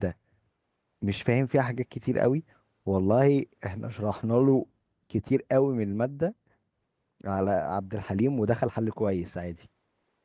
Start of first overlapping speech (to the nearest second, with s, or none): none